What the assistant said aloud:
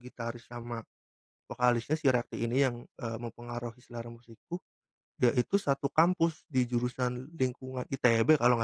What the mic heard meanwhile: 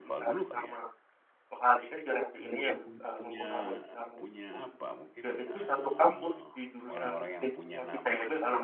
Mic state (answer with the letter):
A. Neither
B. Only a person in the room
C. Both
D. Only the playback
C